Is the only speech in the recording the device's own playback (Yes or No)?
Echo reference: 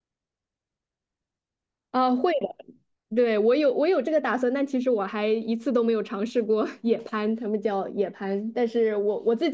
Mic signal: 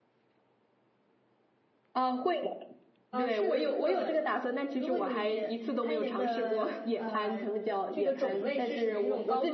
No